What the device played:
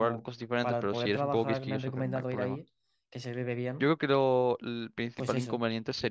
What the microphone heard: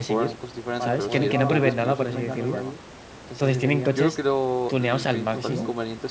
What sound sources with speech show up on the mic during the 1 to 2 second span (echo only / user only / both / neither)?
both